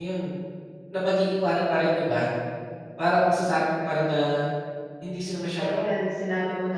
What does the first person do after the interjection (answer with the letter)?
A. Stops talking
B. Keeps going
A